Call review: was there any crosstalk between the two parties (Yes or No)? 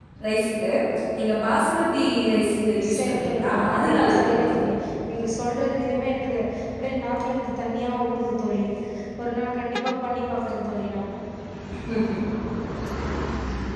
Yes